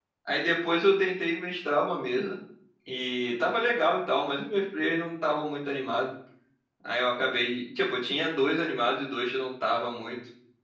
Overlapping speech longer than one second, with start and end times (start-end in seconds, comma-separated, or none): none